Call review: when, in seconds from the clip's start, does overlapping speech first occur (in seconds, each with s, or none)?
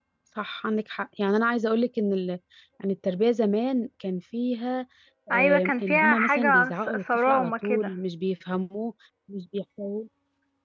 5.3 s